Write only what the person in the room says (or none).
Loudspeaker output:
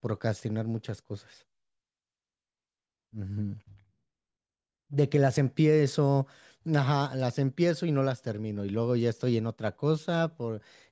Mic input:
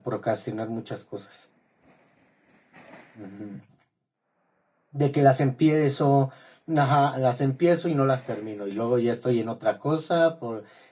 none